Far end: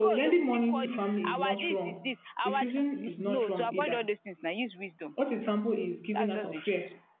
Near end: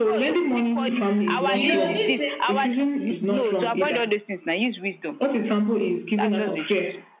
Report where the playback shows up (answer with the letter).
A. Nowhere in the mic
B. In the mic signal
B